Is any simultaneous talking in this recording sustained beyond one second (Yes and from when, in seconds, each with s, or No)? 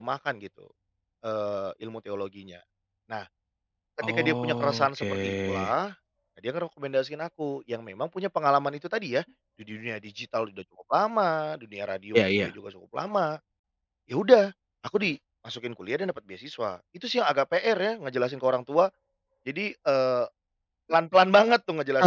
Yes, from 4.0 s